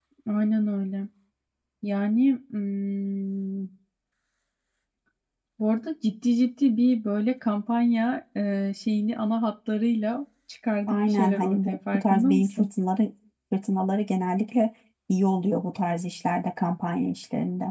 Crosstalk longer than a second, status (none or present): present